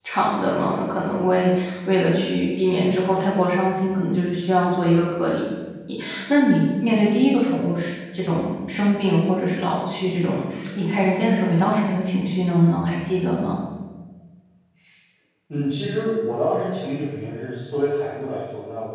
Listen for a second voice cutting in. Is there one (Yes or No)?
No